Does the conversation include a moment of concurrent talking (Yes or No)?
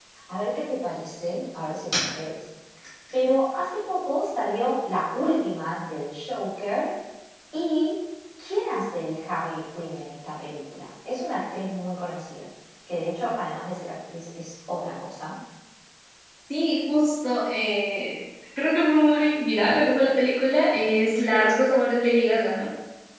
No